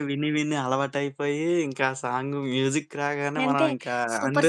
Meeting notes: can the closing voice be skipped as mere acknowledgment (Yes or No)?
No